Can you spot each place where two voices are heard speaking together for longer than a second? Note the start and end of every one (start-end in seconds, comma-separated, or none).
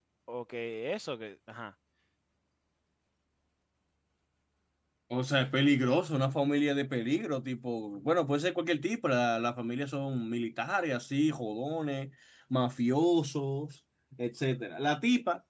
none